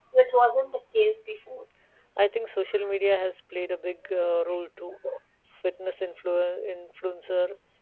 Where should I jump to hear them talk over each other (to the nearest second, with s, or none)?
none